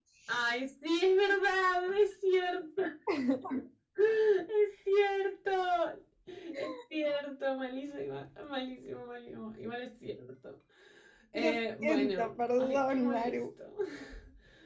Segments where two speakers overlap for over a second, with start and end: 11.3-13.3

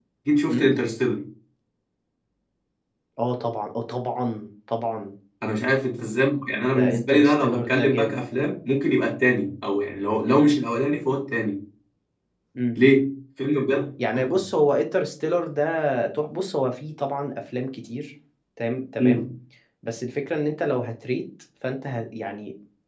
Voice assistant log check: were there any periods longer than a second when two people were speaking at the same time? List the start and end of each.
6.8-8.2

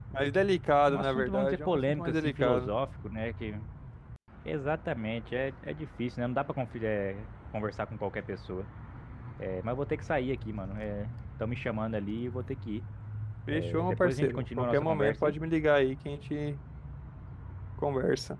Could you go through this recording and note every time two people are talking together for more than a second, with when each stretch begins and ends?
0.9-2.7, 13.5-15.3

